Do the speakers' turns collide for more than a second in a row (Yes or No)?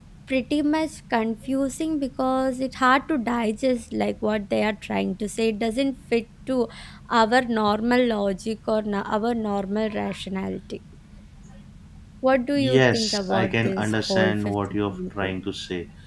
Yes